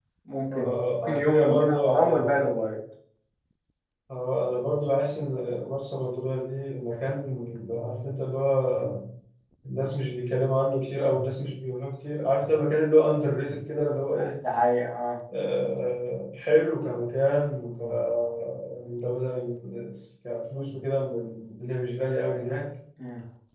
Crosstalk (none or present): present